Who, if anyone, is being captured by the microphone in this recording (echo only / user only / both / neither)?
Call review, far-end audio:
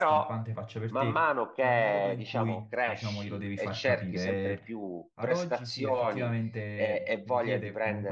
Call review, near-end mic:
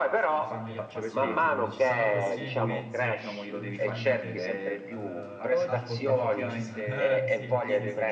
both